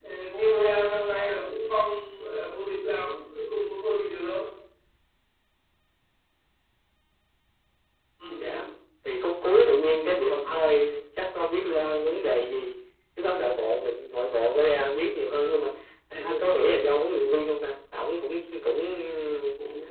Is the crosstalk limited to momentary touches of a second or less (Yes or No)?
Yes